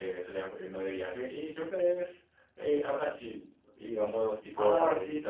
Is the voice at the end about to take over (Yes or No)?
No